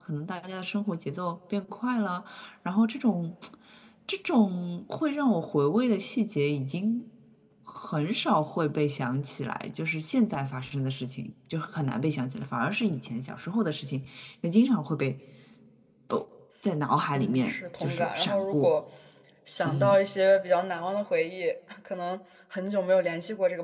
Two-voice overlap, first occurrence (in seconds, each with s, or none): 17.1 s